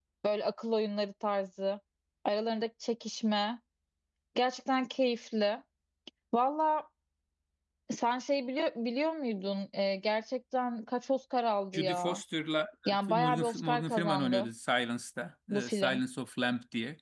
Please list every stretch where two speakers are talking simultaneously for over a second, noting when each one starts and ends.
13.1-14.5

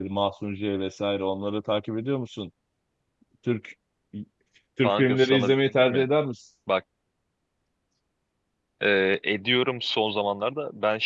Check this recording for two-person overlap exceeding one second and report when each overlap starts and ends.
4.8-6.0

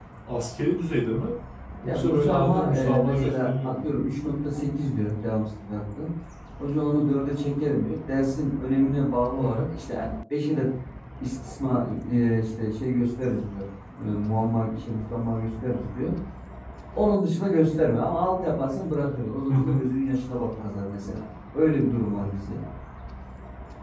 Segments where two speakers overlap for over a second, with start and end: 1.9-3.9

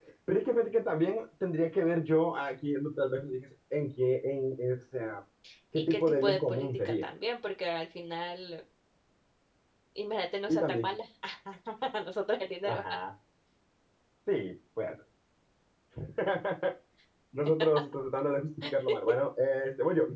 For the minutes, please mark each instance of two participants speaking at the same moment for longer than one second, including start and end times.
5.7-7.1

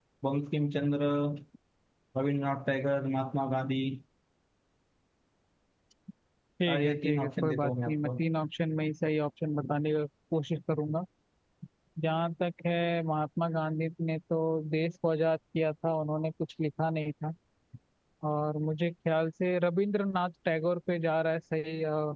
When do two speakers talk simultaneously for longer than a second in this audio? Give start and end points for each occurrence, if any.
6.7-8.2

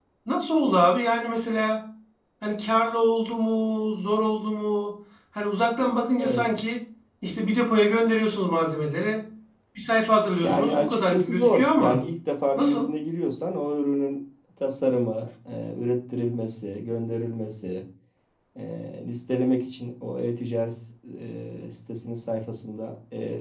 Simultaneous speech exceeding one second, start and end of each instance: 10.3-12.0

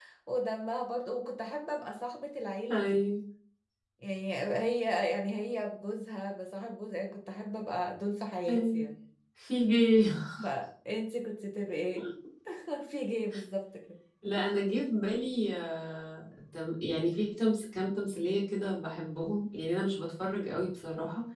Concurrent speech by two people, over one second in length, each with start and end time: none

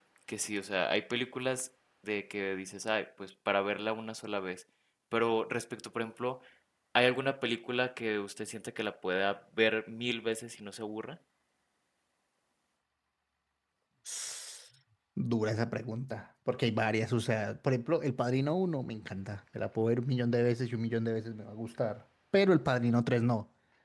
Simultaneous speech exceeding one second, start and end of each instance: none

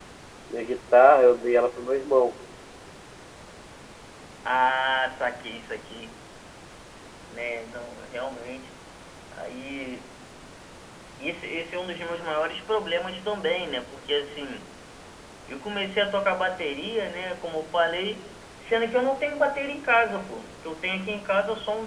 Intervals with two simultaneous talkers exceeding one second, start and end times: none

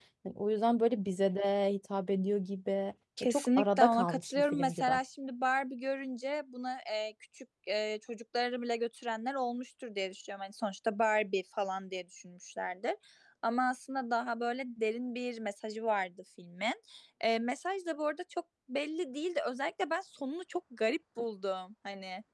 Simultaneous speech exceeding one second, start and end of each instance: 3.2-4.9

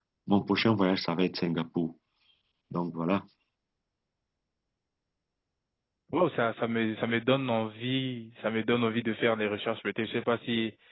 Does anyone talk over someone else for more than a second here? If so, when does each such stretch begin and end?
none

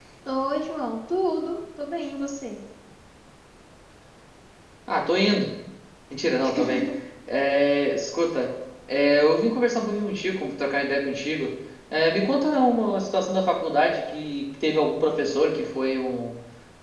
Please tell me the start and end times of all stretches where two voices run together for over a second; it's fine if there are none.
none

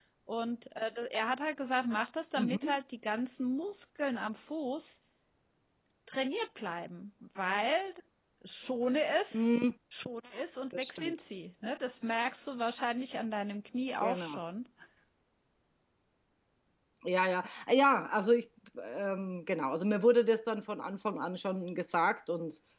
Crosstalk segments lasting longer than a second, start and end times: none

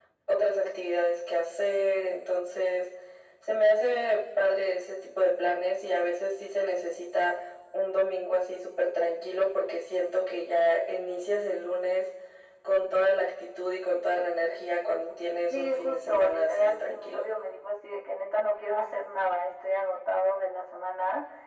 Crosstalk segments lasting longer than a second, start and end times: 15.5-17.2

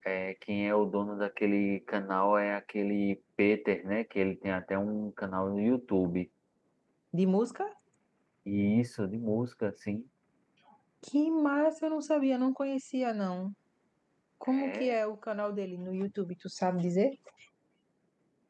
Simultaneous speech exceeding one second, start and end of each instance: none

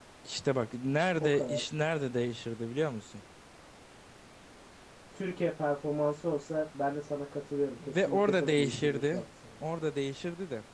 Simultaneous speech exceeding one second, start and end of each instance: 7.8-9.2

